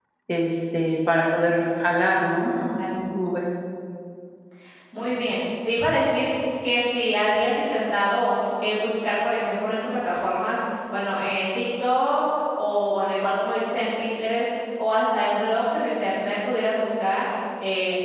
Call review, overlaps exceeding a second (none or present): none